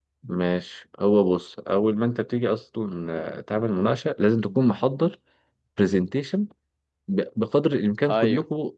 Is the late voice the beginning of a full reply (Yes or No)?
No